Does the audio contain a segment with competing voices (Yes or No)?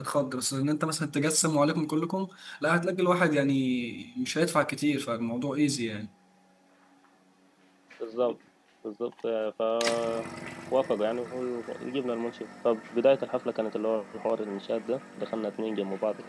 No